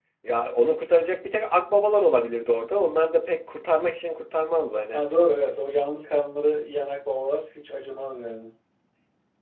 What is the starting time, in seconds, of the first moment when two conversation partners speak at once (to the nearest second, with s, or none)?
none